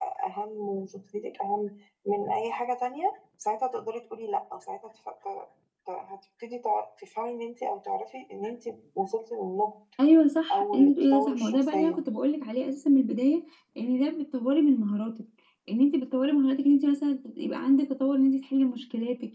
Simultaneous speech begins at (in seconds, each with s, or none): 10.5 s